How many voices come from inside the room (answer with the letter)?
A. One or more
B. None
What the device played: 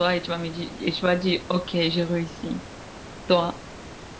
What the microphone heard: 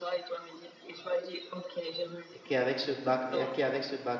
A